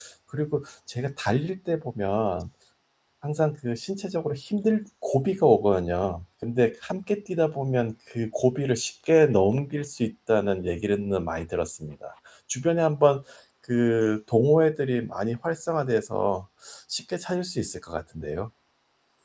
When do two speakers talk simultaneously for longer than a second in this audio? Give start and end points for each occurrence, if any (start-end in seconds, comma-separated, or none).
none